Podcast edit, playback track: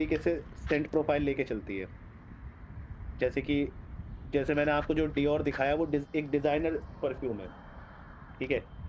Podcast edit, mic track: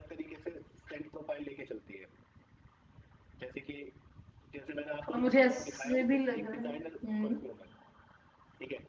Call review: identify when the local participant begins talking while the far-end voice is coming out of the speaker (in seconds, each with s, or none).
5.1 s